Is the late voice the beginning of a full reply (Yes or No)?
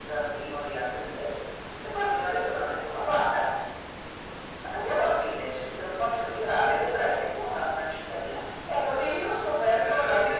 No